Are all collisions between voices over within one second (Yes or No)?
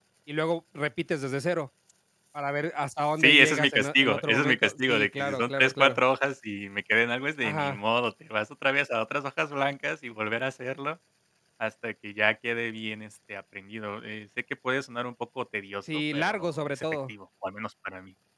No